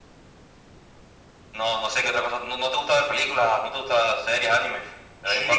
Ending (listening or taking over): taking over